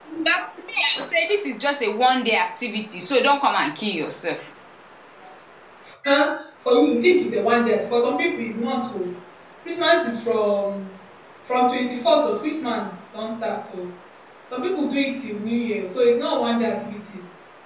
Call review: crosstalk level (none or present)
none